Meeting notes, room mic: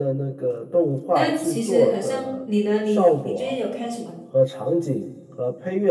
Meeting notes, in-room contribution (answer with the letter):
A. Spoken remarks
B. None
A